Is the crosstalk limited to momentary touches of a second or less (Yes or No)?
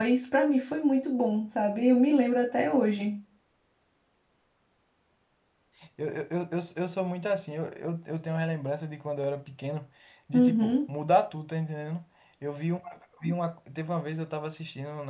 Yes